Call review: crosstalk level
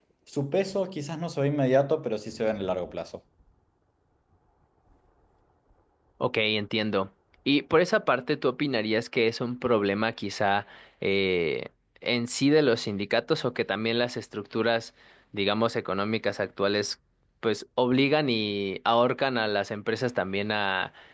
none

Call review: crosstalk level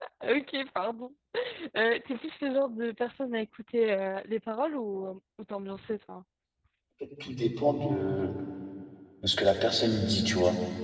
none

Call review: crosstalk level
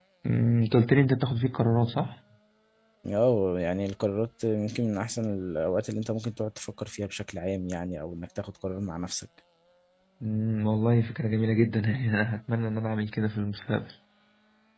none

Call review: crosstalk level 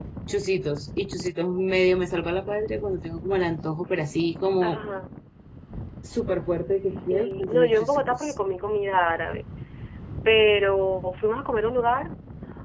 present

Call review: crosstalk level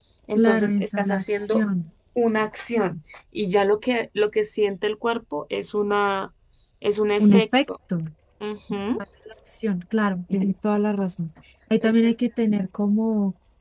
present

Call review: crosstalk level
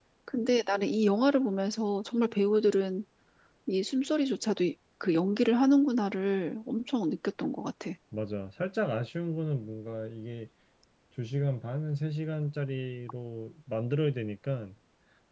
none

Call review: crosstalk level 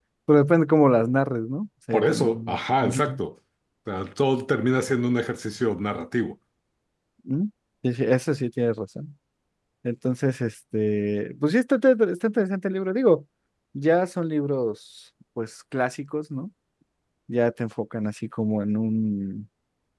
present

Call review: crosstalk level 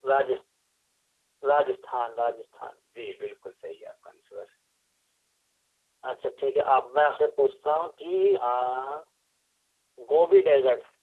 none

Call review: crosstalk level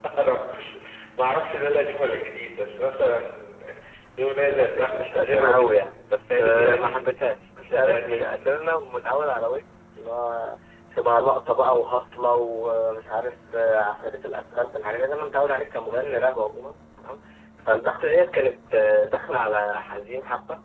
present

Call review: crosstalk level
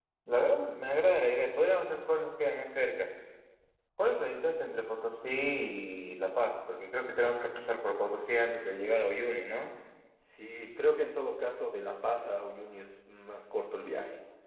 none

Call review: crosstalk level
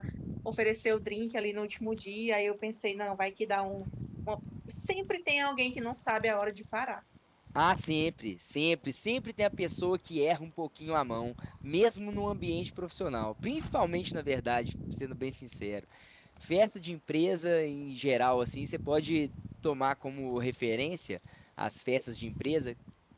none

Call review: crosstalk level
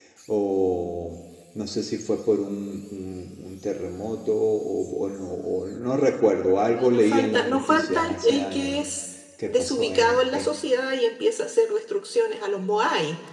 present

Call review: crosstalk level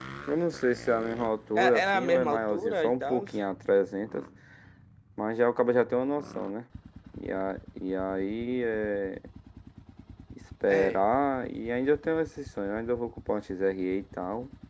present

